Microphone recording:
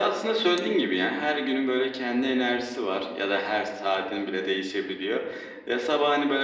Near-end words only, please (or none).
none